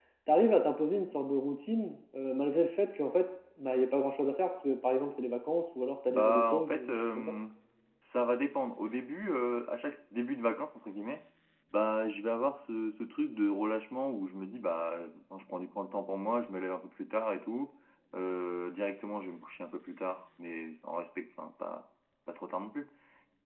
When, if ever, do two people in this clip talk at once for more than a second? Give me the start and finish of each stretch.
6.1-7.3

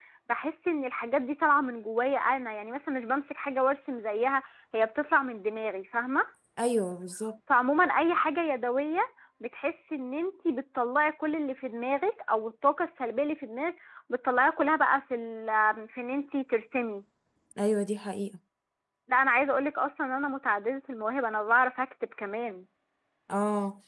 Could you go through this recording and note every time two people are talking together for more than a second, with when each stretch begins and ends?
none

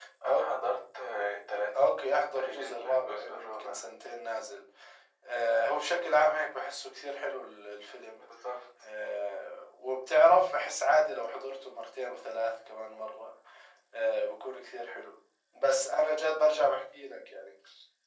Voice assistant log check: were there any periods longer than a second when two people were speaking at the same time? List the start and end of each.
2.3-3.8

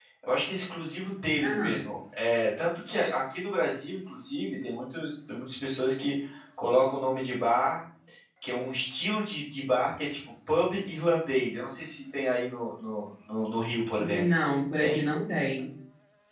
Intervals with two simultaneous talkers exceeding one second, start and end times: none

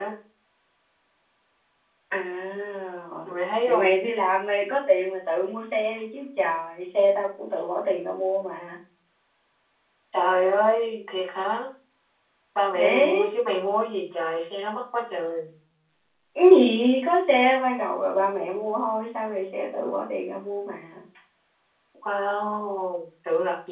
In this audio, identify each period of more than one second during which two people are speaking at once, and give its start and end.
none

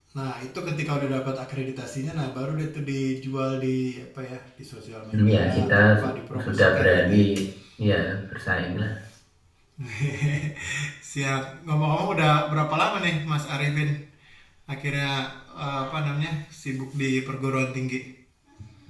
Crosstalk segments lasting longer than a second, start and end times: 5.1-7.1

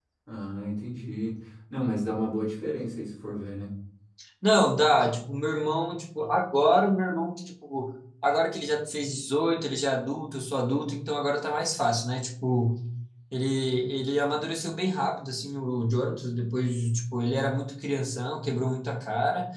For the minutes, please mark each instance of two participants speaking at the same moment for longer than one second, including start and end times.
none

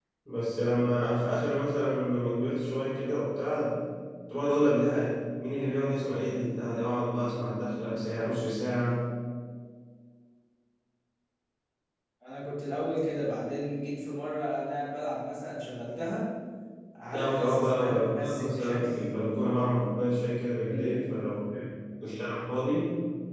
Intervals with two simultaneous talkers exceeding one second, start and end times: 17.1-18.9

